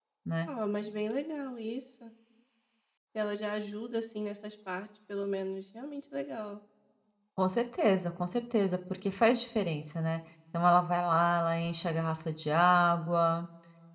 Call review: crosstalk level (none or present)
none